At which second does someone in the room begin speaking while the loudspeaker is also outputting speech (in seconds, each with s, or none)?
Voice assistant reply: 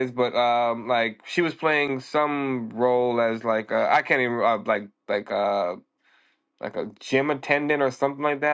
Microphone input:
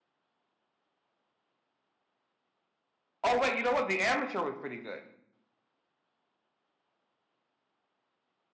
3.2 s